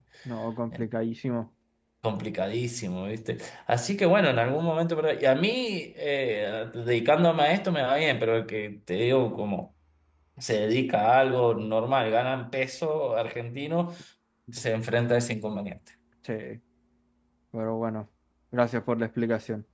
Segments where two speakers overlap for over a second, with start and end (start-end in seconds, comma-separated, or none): none